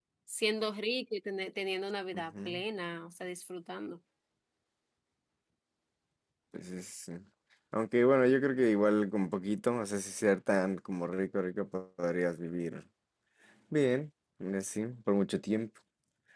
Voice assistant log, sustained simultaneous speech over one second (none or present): none